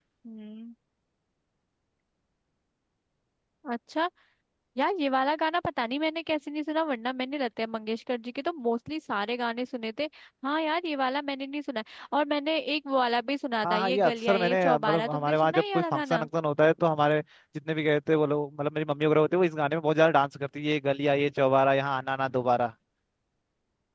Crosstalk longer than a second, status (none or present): present